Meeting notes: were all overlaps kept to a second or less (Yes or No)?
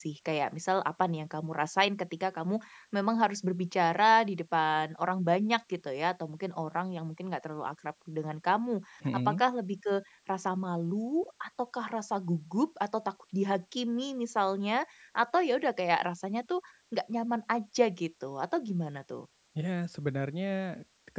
Yes